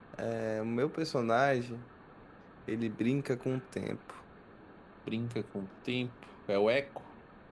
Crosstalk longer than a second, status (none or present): none